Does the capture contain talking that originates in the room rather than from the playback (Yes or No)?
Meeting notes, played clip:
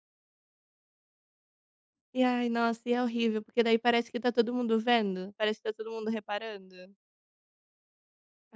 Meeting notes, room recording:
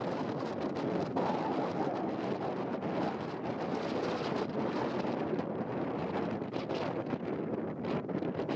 No